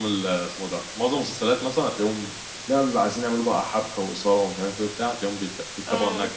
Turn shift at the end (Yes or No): No